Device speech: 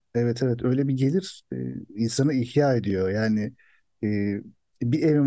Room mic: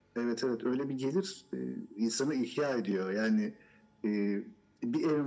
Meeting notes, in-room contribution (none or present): none